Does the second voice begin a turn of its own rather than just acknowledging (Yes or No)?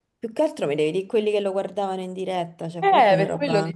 Yes